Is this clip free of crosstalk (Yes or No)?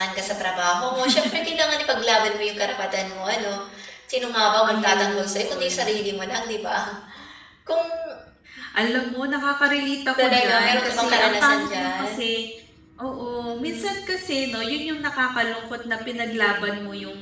No